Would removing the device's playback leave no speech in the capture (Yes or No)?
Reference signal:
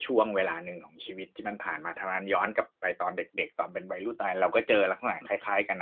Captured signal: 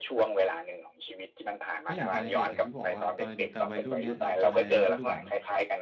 No